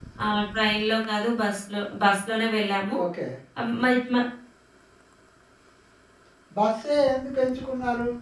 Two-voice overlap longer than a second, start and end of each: none

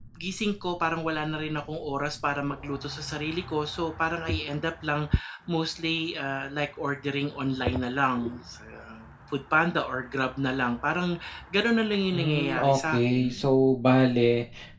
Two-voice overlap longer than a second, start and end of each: 12.1-13.4

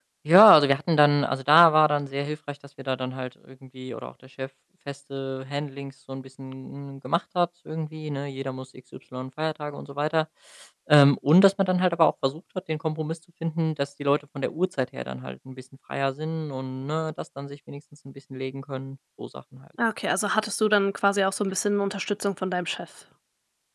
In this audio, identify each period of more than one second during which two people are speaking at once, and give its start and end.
none

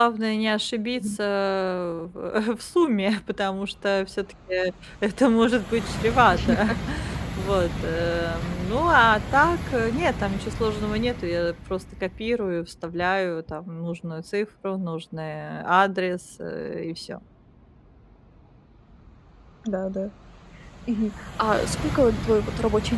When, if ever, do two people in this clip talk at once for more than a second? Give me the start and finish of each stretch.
none

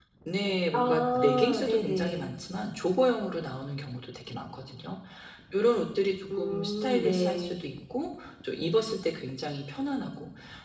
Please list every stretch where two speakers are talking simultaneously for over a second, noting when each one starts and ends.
0.7-2.3, 6.4-7.6

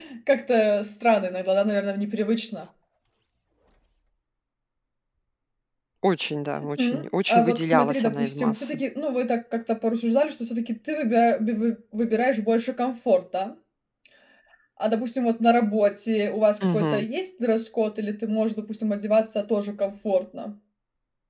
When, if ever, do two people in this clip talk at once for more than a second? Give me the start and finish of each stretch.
6.8-8.8

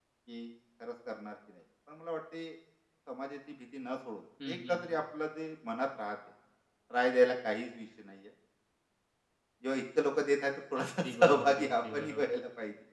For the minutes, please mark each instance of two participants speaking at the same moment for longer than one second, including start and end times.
10.8-12.3

